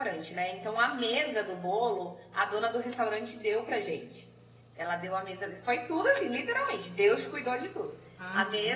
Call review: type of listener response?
listening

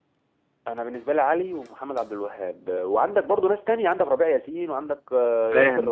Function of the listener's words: taking over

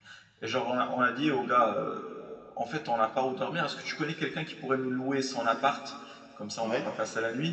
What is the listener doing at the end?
listening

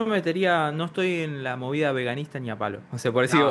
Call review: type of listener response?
listening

